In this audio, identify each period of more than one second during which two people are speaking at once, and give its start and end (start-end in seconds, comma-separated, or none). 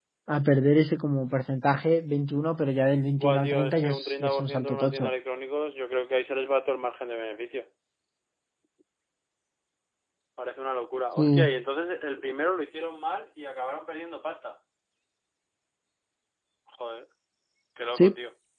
3.2-5.1